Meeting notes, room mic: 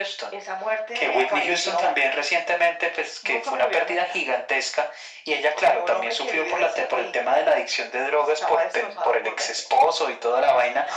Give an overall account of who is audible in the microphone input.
echo only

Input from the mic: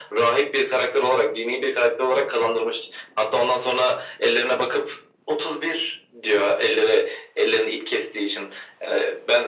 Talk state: echo only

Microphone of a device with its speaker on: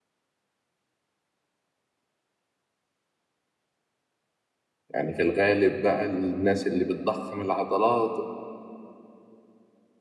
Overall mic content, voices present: user only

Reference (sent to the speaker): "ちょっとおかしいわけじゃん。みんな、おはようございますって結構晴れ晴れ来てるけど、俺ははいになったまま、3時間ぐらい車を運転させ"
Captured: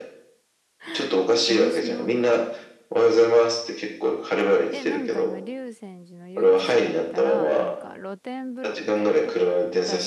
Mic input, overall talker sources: both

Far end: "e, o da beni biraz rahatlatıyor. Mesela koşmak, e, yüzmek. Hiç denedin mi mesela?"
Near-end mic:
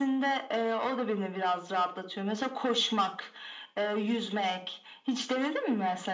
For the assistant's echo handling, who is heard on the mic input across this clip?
echo only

